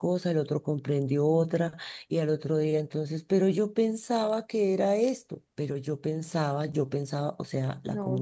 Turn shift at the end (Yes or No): No